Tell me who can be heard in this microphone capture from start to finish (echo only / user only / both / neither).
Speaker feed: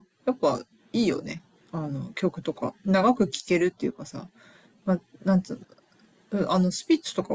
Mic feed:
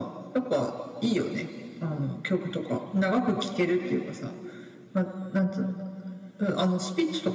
echo only